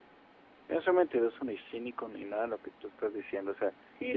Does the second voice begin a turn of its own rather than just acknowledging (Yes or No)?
Yes